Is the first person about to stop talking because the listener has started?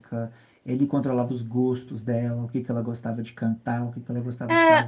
Yes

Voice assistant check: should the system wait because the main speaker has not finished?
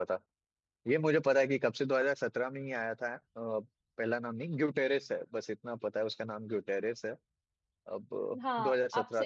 No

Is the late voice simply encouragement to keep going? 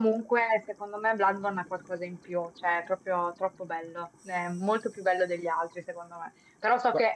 Yes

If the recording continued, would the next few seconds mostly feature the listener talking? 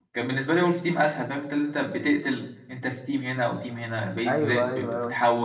Yes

